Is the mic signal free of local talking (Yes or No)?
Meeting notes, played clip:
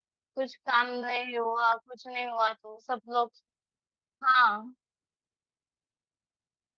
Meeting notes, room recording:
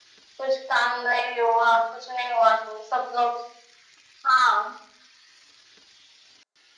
Yes